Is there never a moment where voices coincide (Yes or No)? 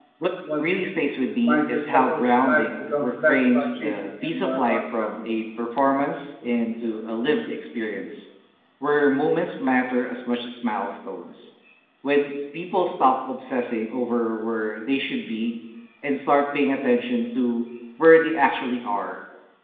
No